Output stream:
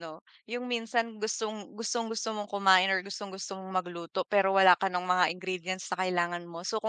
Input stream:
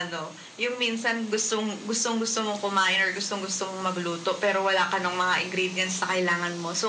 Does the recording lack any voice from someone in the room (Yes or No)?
Yes